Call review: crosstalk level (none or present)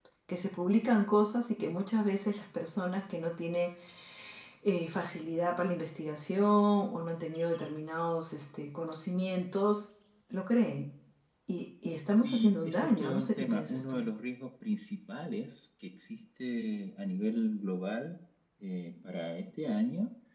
present